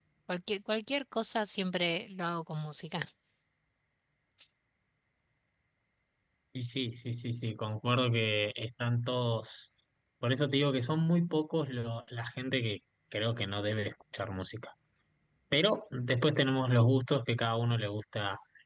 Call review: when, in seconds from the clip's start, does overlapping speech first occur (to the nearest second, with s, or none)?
none